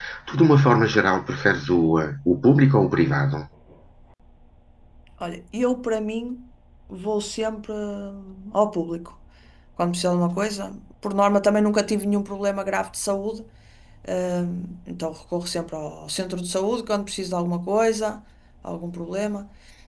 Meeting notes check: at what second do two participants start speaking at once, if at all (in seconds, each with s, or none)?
none